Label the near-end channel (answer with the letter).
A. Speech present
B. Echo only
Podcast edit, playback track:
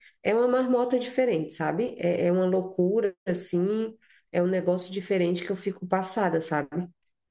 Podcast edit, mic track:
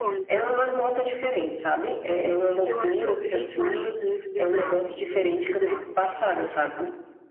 A